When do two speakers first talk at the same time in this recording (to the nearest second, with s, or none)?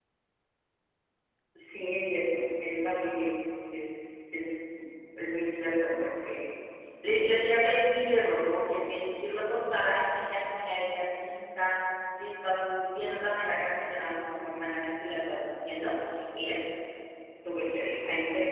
none